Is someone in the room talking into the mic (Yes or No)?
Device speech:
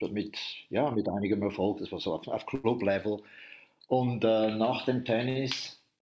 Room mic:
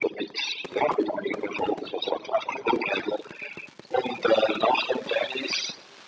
No